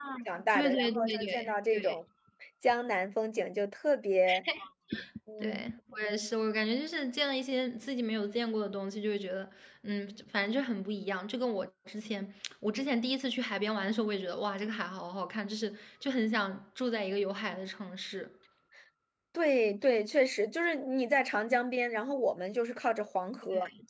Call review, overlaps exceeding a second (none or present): present